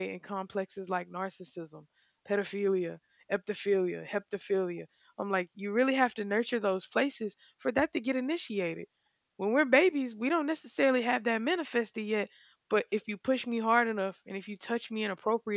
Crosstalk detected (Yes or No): No